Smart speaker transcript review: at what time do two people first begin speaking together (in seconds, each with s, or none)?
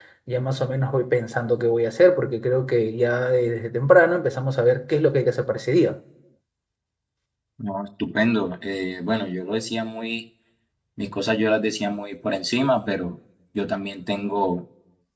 none